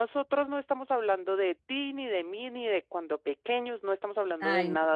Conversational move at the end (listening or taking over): listening